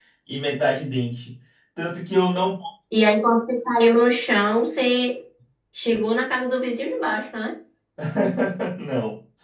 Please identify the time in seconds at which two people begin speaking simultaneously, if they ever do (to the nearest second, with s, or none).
none